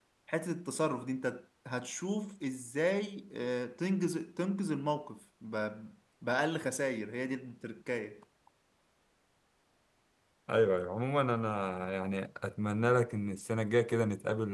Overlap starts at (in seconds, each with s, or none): none